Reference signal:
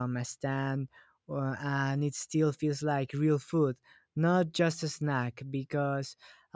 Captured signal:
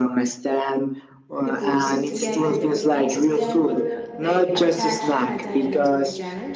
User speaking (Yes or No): Yes